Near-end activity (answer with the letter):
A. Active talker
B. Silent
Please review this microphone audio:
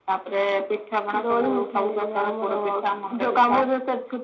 B